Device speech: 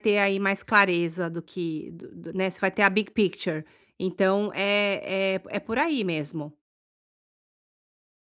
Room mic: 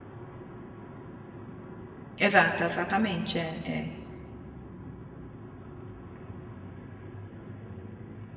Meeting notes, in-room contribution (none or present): present